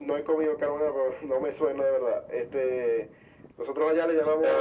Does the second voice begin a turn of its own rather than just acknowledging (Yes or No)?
No